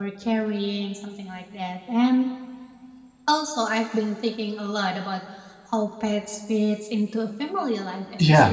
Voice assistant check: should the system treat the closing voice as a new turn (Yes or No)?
No